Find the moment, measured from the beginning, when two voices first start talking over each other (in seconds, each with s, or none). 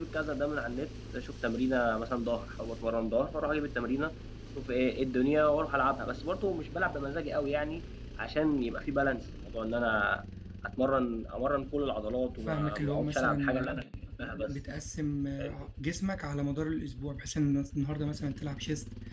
12.5 s